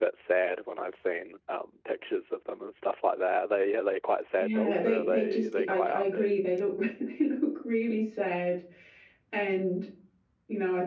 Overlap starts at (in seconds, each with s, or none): 4.4 s